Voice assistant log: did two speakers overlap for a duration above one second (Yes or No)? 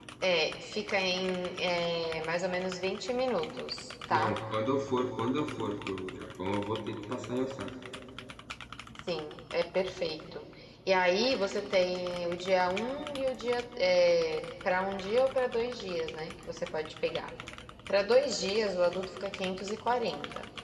No